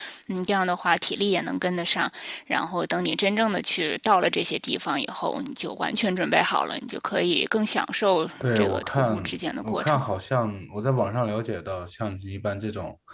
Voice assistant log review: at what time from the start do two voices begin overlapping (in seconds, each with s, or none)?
8.4 s